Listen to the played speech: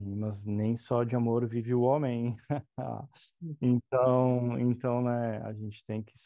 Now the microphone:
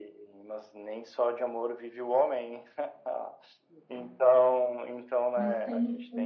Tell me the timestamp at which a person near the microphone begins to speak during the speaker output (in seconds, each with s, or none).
5.3 s